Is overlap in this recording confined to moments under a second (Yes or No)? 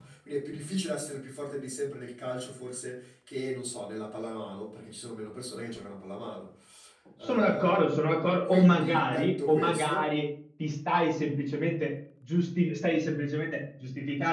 No